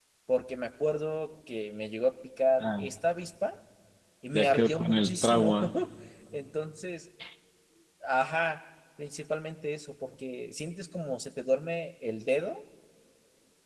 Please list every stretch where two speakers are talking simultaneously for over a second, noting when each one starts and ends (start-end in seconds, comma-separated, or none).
4.3-5.6